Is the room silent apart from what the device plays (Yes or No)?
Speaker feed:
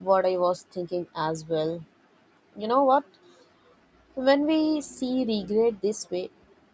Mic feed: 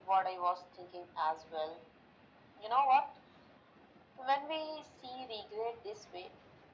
Yes